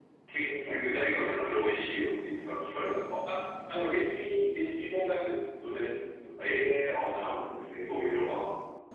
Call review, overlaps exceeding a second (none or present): none